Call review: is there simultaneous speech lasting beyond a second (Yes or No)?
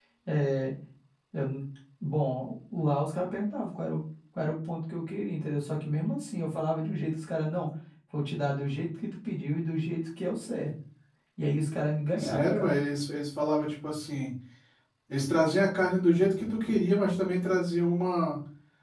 No